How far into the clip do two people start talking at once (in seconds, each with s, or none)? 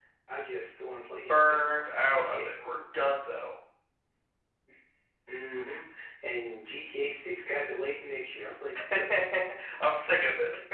1.3 s